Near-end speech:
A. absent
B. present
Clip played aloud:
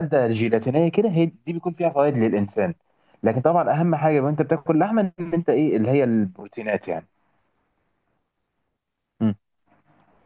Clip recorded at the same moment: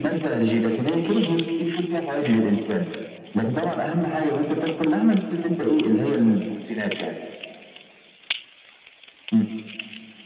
A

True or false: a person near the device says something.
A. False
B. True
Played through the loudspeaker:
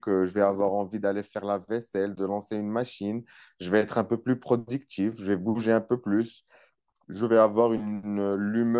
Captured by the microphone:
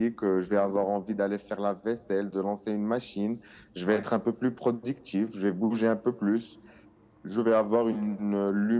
B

